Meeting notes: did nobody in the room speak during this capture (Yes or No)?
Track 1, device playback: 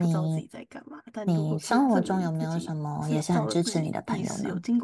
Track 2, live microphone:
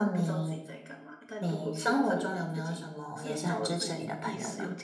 Yes